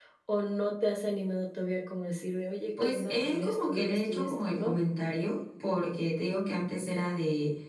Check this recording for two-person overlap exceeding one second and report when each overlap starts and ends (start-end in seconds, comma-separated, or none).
2.8-4.7